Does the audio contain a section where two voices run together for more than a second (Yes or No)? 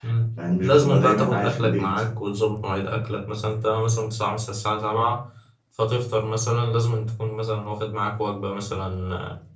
Yes